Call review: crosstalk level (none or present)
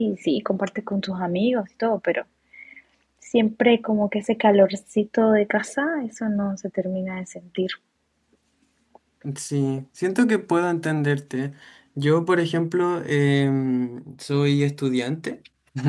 none